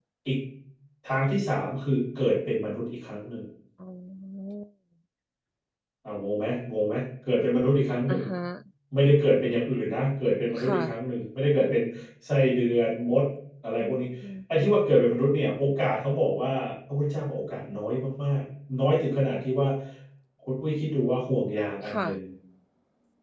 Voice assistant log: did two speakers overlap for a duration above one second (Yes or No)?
No